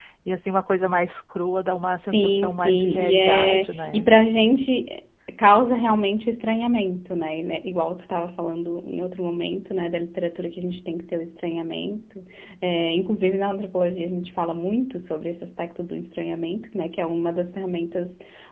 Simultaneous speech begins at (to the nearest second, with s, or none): 2 s